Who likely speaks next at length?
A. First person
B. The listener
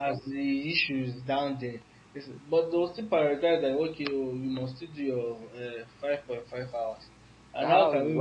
B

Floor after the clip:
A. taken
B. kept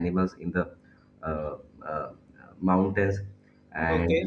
B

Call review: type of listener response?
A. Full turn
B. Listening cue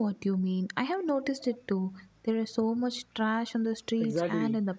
A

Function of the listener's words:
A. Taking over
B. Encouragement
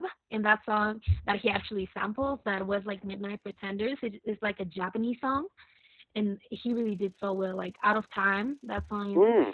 A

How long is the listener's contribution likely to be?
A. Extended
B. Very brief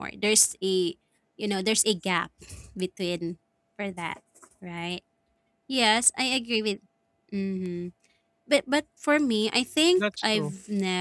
B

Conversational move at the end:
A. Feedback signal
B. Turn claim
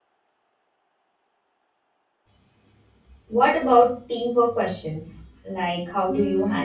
B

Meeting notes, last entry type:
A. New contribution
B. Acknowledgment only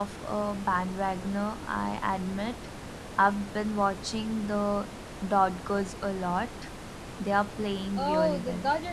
A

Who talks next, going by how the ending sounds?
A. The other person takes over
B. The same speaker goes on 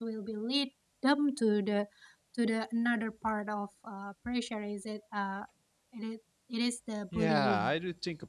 A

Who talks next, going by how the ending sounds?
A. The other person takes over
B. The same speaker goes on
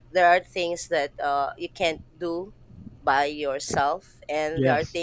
B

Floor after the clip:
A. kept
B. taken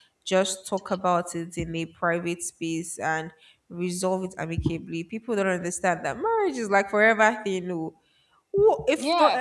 B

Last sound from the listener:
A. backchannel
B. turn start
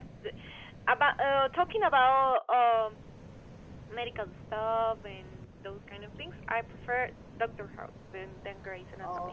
B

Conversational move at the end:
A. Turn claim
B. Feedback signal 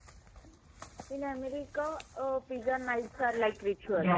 A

